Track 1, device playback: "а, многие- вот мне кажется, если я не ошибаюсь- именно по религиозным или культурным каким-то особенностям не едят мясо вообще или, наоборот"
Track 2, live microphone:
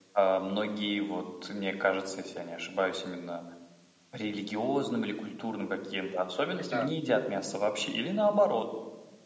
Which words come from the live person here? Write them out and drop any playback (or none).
Да.